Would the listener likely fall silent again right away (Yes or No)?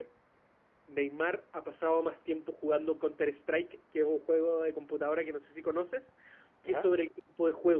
Yes